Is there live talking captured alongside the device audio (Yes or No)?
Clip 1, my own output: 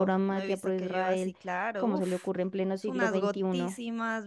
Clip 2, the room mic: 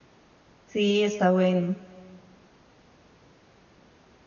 Yes